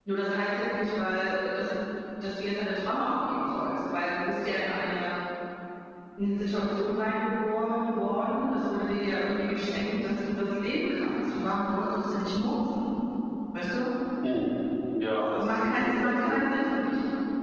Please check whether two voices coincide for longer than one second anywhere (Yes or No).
Yes